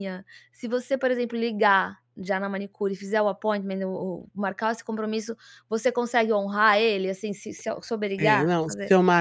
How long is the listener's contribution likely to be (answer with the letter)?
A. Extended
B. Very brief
A